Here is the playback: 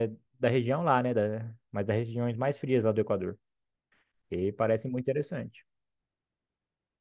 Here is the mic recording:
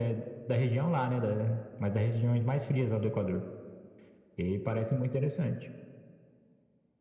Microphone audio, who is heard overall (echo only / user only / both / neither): echo only